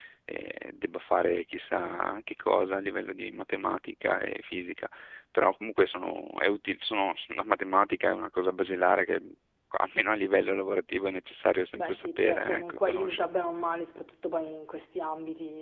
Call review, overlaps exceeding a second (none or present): present